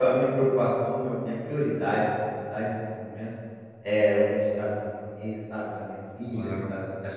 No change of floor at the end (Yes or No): Yes